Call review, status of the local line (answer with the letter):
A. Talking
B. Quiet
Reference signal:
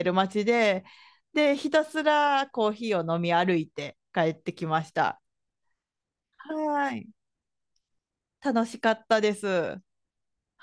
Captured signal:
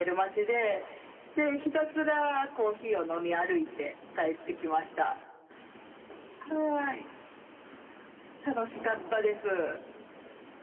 B